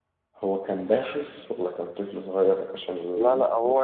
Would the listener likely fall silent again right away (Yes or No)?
No